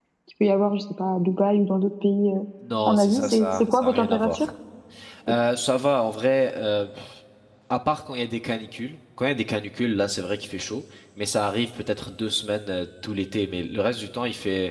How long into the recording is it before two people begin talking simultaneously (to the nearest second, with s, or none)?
3 s